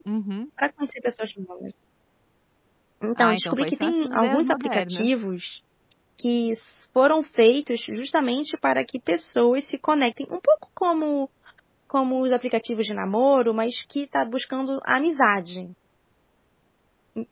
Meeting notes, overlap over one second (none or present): present